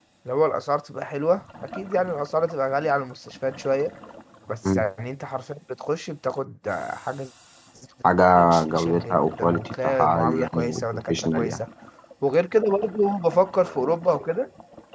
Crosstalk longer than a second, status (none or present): present